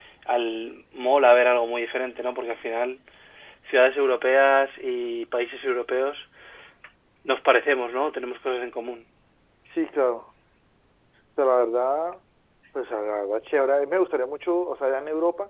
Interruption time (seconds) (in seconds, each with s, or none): none